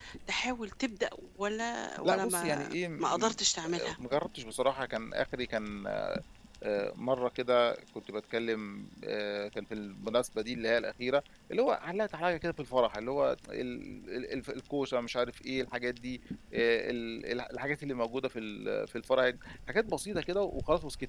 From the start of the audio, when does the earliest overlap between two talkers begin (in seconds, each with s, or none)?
2.0 s